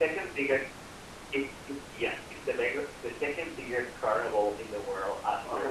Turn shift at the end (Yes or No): Yes